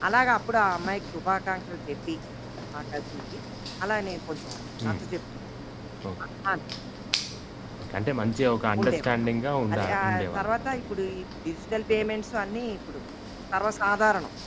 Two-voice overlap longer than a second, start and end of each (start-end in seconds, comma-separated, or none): 9.7-11.0